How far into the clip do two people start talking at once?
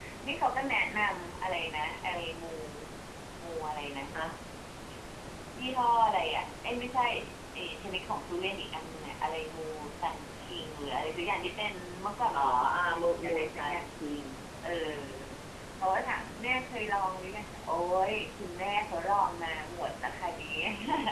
12.3 s

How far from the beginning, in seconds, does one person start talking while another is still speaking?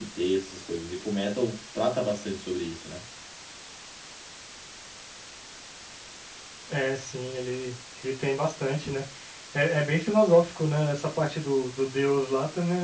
none

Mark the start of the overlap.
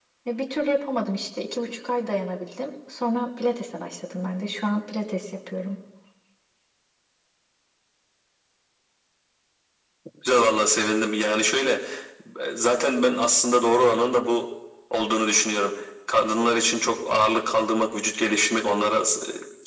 none

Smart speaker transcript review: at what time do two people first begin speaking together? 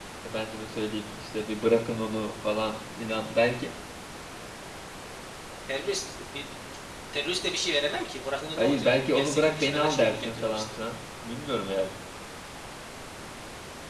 8.6 s

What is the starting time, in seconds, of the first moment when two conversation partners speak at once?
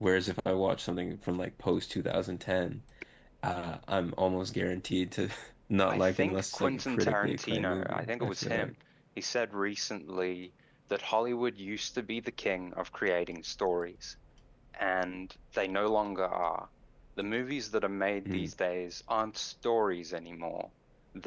5.9 s

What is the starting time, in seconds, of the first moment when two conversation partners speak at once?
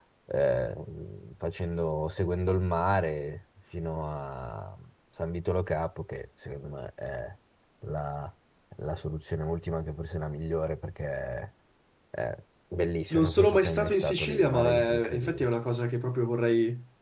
13.1 s

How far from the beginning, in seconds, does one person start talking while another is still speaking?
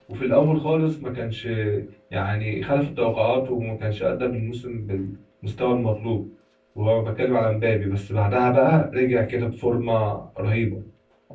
none

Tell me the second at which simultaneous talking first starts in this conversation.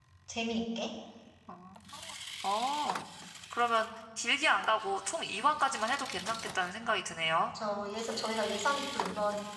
none

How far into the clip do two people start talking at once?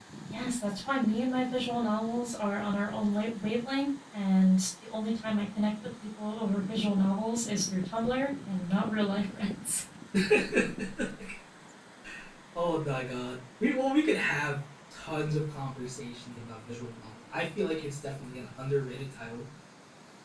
none

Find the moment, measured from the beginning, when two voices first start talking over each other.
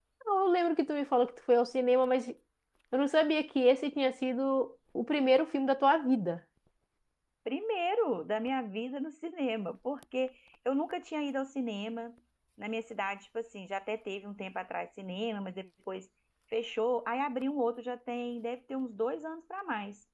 none

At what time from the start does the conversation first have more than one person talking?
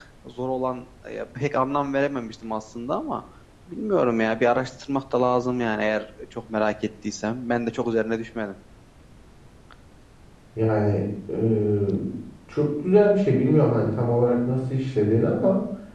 none

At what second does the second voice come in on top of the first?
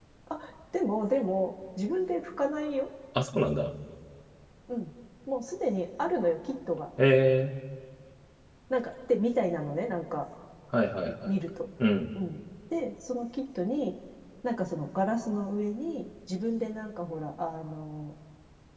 none

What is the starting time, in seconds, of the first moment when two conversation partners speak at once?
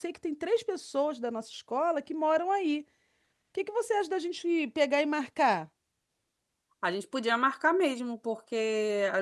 none

